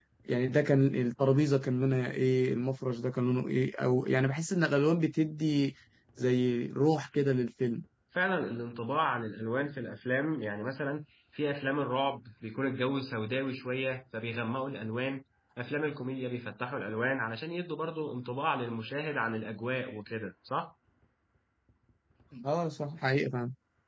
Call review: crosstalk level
none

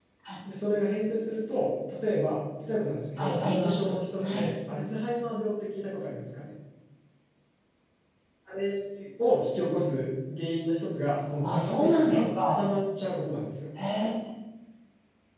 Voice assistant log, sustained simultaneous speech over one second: present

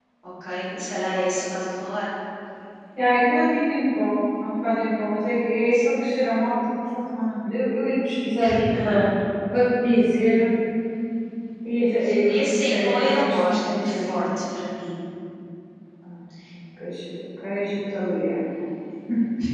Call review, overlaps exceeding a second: present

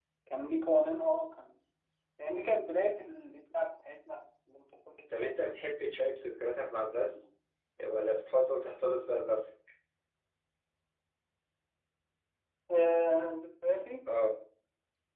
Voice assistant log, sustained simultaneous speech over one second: none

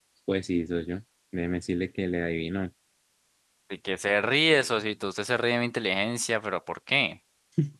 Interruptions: none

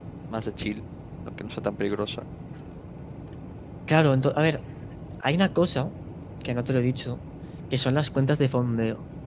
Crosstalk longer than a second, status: none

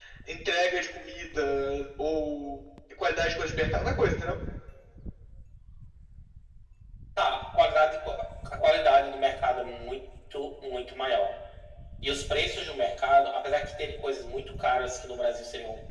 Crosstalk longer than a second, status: none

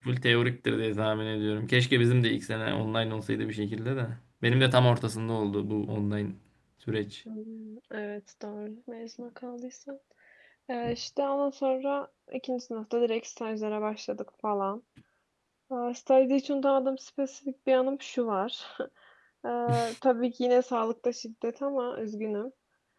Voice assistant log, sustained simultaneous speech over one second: none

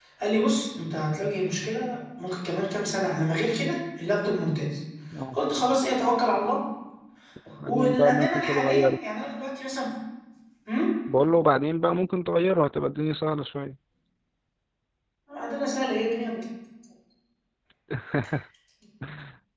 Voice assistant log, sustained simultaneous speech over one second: present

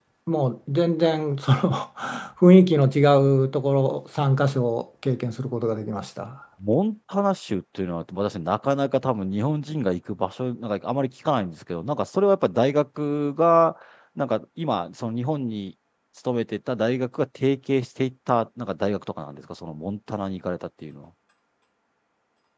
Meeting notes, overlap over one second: none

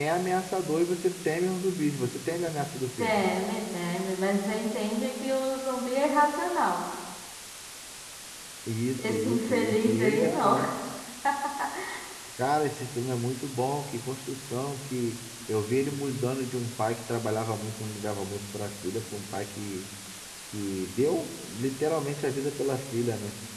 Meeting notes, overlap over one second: present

